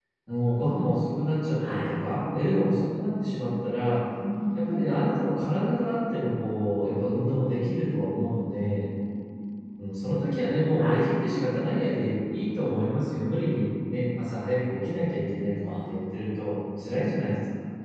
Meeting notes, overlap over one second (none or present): none